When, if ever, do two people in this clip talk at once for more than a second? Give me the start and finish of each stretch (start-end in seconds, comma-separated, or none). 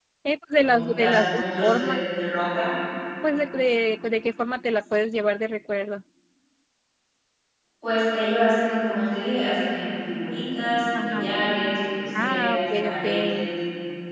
0.6-2.0, 12.2-13.5